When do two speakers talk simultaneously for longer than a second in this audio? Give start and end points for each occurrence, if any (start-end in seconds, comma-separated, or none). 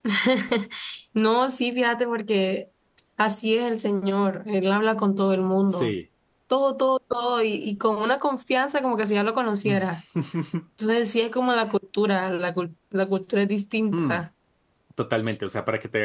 none